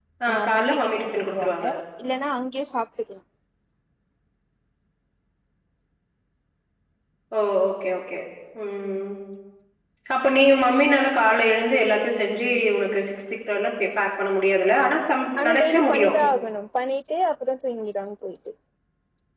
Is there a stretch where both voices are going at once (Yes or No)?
Yes